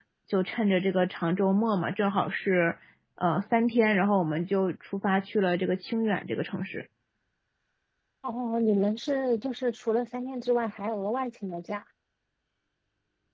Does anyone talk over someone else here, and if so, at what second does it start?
none

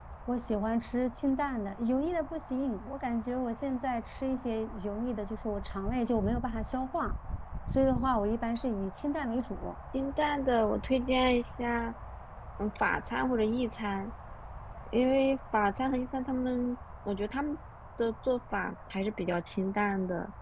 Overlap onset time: none

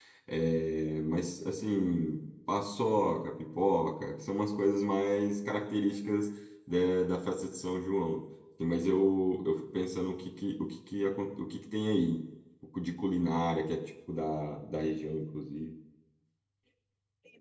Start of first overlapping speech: none

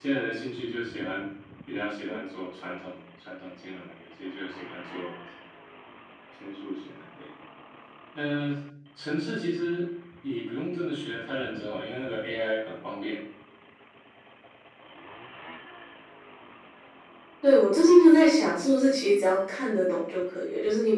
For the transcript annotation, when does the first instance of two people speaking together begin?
none

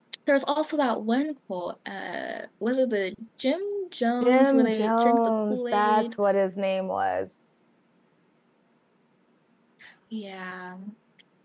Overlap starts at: 4.2 s

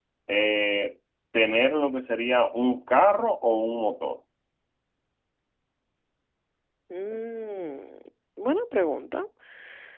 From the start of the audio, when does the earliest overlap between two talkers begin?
none

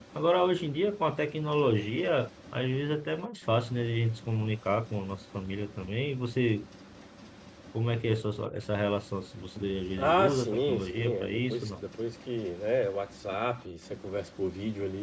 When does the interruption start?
10.0 s

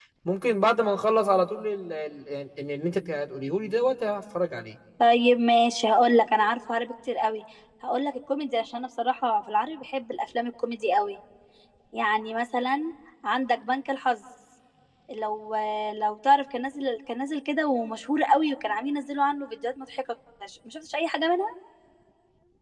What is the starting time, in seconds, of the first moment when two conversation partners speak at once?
none

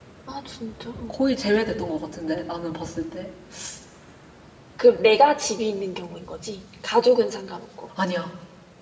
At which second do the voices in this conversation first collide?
none

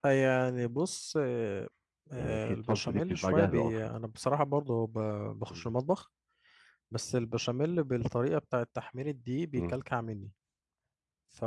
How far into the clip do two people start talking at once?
2.2 s

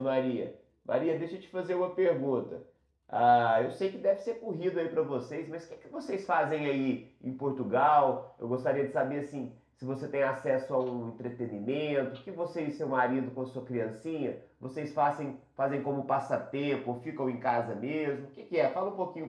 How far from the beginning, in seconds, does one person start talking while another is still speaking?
none

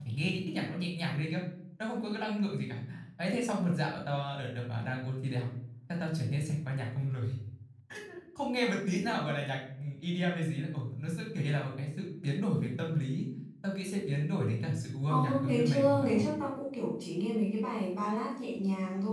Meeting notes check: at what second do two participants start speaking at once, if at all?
15.1 s

